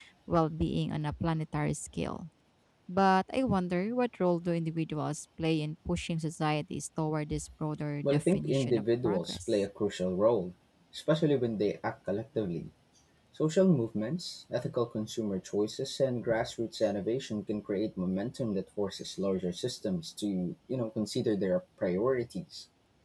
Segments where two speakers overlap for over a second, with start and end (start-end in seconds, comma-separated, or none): 8.0-9.5